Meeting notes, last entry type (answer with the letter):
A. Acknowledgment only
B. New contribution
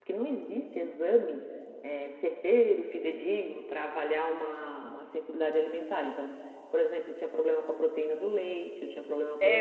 B